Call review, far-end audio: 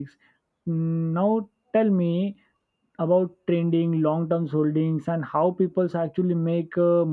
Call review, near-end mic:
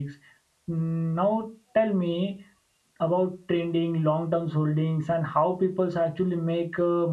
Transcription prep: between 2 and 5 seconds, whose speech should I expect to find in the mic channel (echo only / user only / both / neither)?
echo only